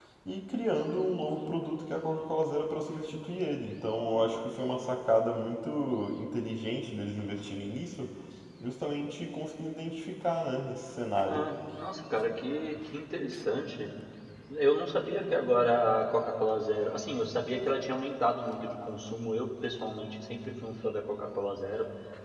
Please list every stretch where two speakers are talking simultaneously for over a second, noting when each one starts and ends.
none

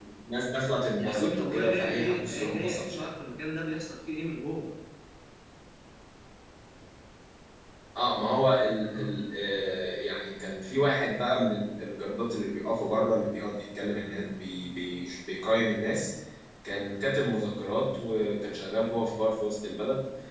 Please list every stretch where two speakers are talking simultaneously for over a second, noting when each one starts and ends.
1.0-3.1

